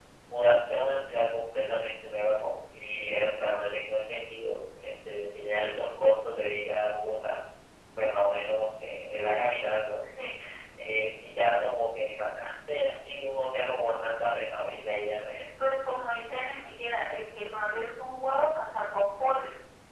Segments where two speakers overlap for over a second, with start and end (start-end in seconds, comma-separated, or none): none